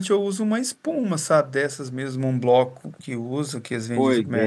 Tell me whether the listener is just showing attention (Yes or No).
No